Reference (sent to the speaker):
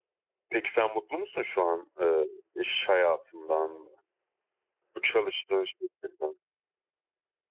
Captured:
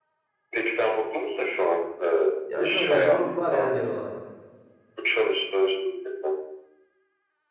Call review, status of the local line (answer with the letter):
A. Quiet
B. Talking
B